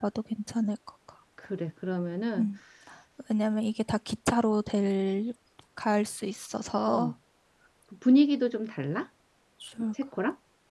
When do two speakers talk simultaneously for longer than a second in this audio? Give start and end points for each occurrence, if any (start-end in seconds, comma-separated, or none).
none